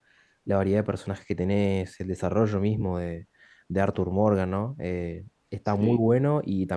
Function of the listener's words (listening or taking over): listening